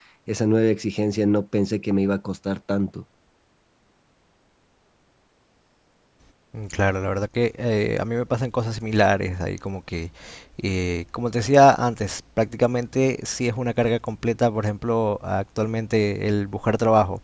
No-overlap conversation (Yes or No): Yes